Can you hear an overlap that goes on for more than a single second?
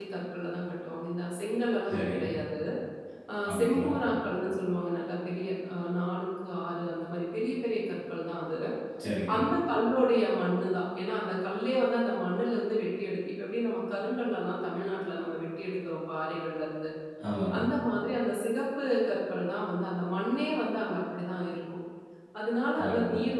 No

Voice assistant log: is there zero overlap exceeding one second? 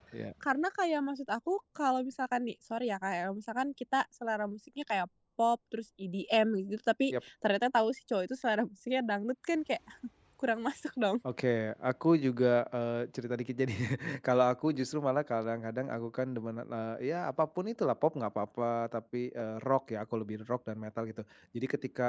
Yes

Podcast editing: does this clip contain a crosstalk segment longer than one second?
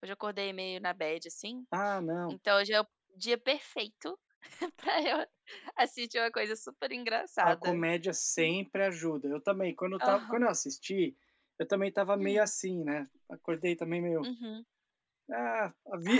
No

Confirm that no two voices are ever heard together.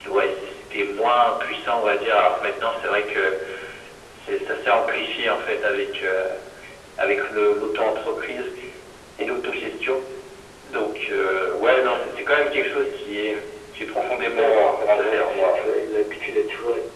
No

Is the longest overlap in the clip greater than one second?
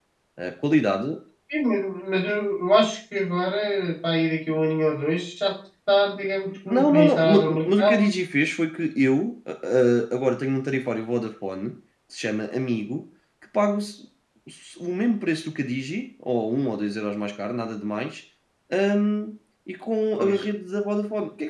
Yes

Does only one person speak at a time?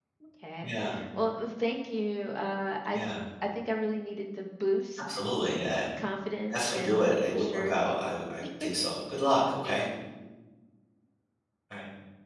No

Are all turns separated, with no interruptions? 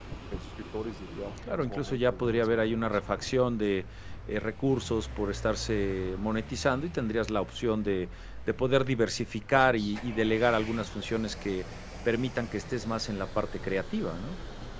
No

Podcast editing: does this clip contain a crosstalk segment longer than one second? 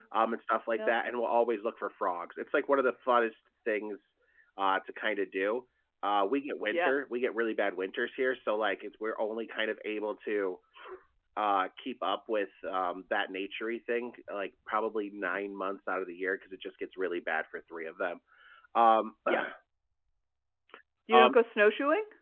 No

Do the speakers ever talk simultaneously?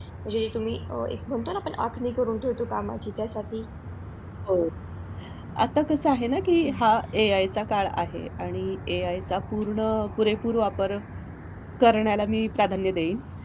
No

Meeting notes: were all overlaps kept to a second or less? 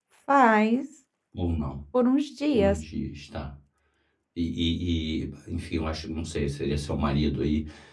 Yes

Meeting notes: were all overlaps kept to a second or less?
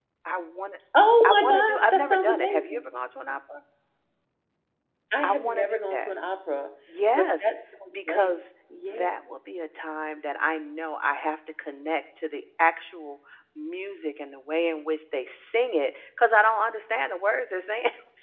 No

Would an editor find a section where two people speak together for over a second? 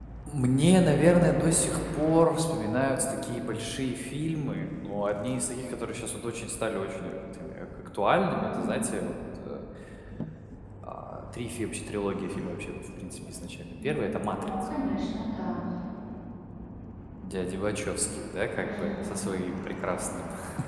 No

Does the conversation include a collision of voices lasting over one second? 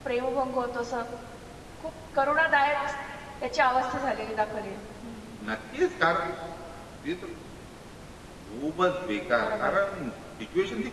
No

